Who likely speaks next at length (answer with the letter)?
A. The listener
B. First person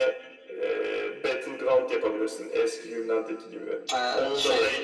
B